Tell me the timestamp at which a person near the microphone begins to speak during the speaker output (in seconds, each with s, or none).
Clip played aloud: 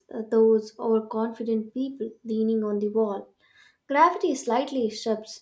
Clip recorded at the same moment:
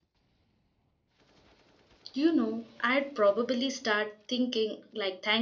2.1 s